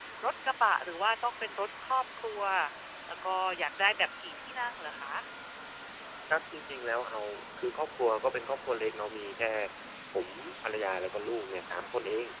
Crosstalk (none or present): none